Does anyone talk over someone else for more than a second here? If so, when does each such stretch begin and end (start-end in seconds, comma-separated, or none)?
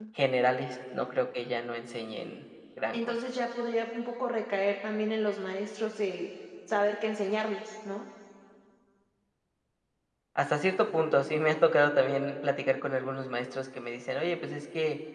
none